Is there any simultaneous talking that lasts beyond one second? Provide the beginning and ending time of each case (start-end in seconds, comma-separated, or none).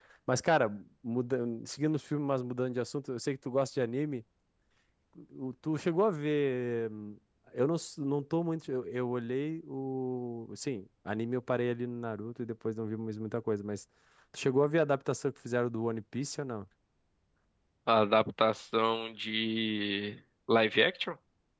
none